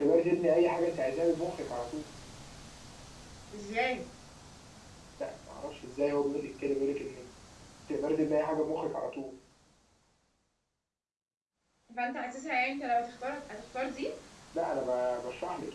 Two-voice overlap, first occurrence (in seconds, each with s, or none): none